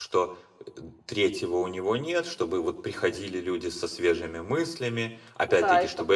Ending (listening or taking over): taking over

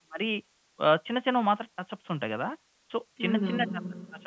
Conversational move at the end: listening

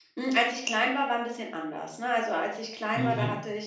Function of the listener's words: listening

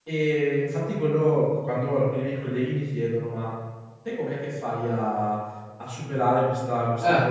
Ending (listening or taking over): listening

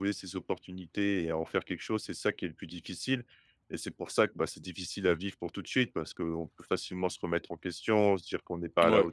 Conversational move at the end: listening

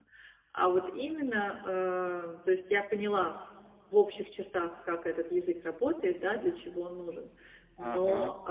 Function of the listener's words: listening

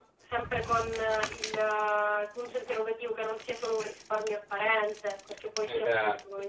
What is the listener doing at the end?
taking over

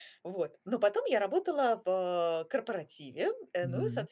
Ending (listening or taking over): listening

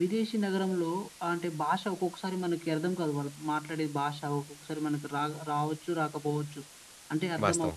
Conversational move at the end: listening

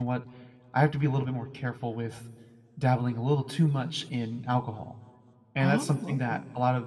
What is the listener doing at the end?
listening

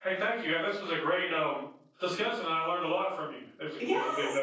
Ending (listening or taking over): taking over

